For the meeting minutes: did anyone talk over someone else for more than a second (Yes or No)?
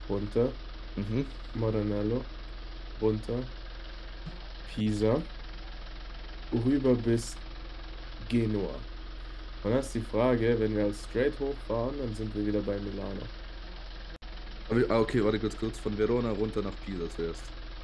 No